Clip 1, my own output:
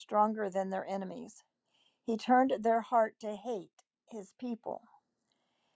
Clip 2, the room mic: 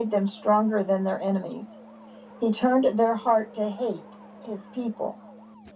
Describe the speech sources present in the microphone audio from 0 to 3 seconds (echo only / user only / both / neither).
echo only